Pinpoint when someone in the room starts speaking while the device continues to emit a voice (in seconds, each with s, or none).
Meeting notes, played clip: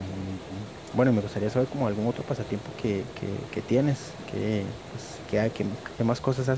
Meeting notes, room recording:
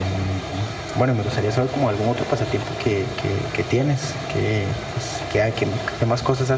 none